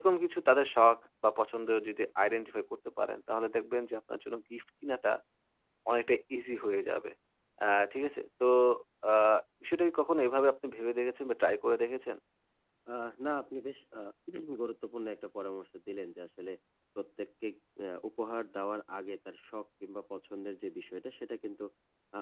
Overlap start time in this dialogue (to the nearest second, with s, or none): none